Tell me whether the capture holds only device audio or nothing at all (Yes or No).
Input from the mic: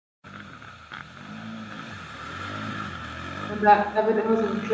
No